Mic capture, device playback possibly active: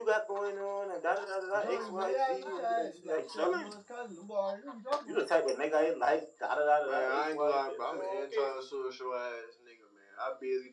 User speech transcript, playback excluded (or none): Zion gonna be like, yeah, I know Chaz. And Be like, shit, I know his cousin. Them boy already know who you talking about.